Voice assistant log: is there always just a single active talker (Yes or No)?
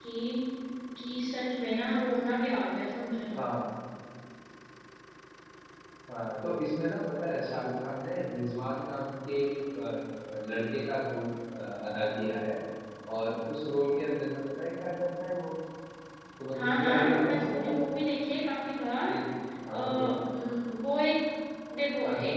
No